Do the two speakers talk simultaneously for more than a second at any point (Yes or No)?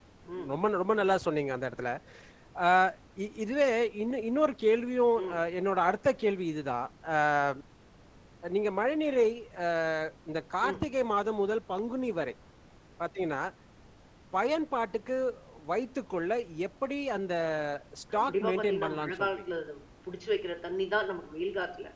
Yes